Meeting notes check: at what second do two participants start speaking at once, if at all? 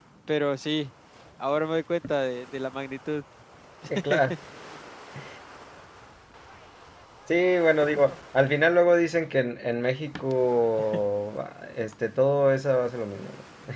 none

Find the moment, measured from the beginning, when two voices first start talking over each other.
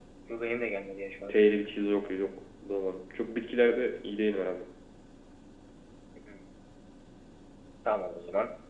none

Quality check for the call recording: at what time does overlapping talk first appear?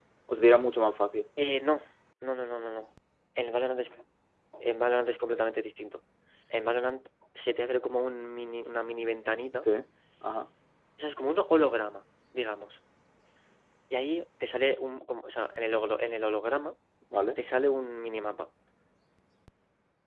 none

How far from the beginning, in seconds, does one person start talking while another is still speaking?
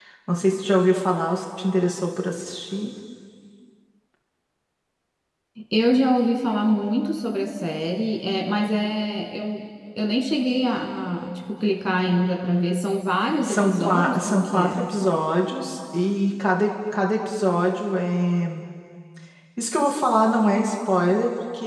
13.4 s

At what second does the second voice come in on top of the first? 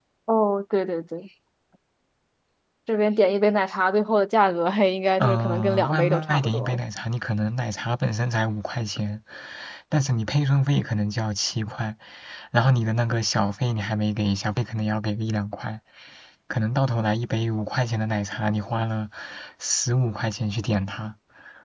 5.2 s

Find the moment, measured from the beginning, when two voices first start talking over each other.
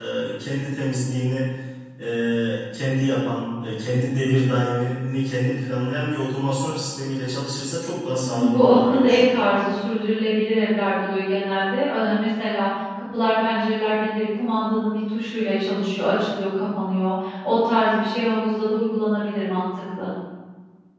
8.2 s

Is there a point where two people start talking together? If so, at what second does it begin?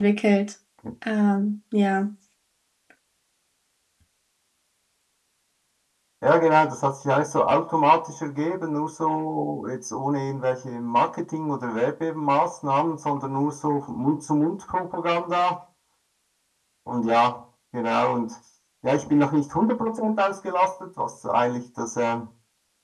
none

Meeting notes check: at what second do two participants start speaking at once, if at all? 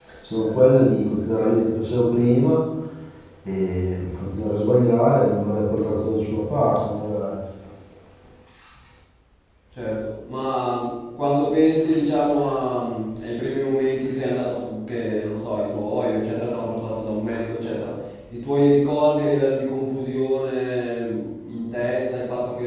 none

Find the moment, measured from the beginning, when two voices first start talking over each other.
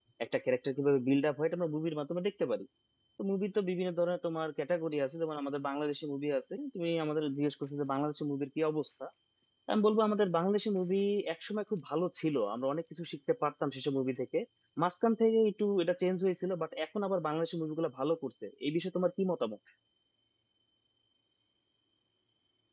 none

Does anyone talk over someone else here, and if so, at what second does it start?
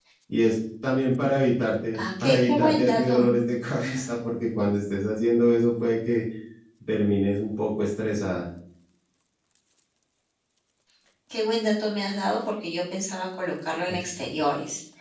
2.0 s

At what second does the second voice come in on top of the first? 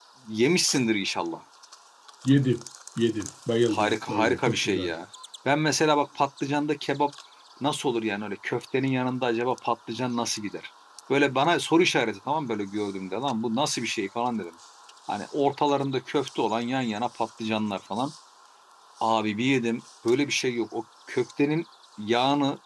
3.7 s

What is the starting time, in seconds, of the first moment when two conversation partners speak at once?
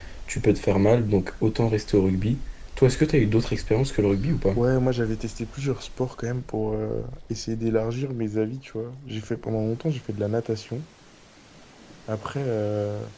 none

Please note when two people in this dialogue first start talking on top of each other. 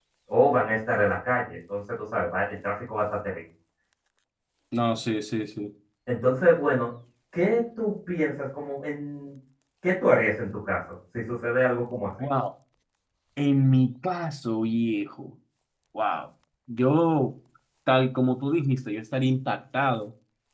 none

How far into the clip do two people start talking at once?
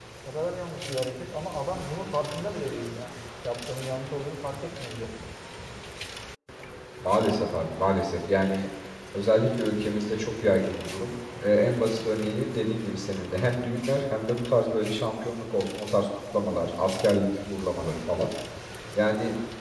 none

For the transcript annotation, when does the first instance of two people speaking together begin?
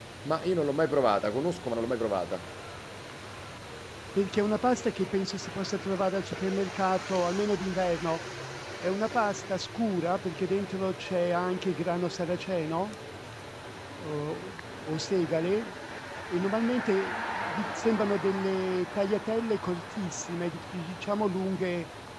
none

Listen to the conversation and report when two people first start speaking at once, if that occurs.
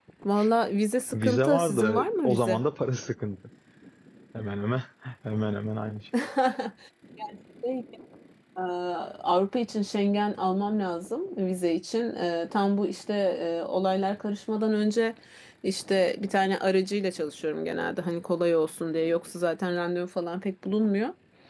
1.1 s

